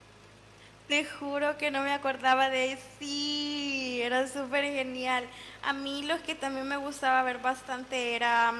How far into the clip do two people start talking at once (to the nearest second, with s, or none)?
none